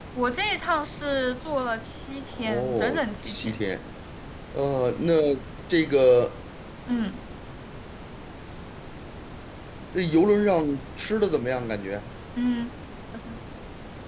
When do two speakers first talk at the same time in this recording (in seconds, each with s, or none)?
2.3 s